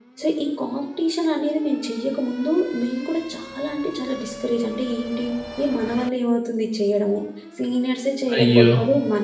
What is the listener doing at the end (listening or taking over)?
listening